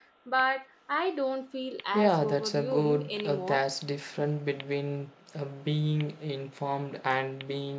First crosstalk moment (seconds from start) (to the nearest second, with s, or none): 2 s